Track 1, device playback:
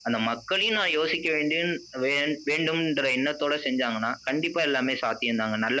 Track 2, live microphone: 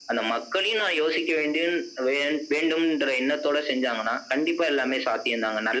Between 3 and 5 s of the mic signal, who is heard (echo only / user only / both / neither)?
echo only